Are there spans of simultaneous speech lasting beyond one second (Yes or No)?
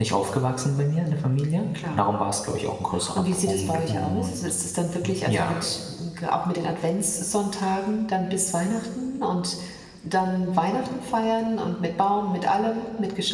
Yes